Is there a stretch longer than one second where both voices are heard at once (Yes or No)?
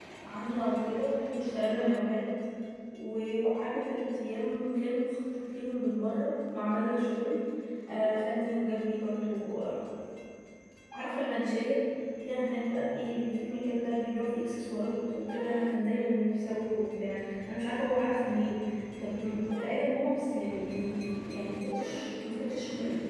No